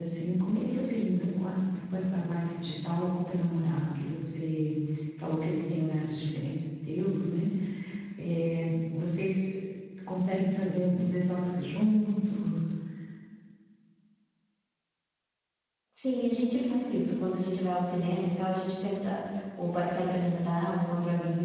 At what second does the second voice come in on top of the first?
none

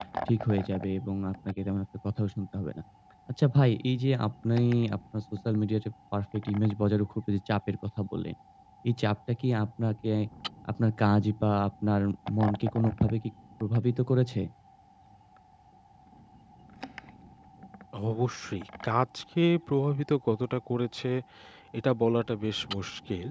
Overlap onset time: none

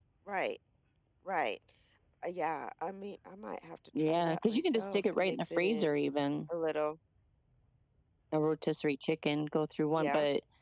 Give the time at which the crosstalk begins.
4 s

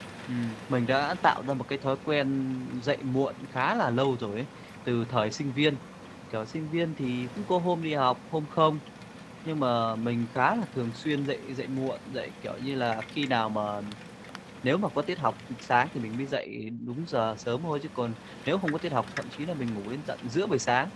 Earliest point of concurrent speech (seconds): none

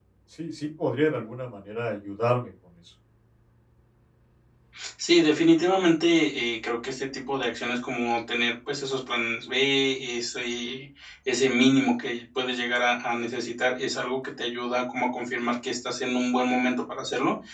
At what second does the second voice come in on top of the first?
none

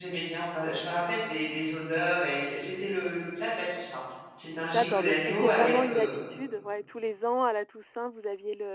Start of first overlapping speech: 5 s

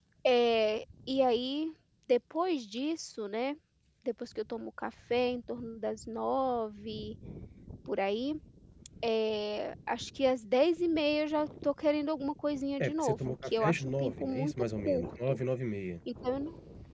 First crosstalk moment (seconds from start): 13 s

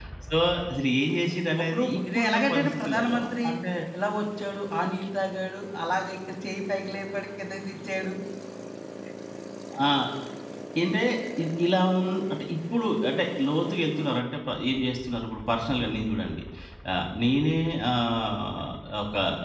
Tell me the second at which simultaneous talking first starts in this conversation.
2 s

